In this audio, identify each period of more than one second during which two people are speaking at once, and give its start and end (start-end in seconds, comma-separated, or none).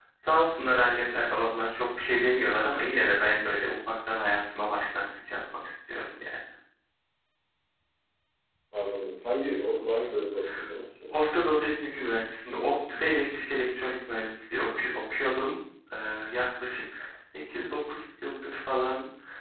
none